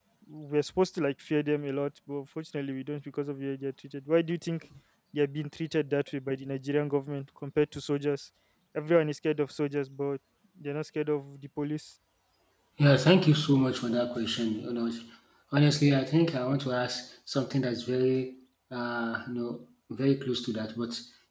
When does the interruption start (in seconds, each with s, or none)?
none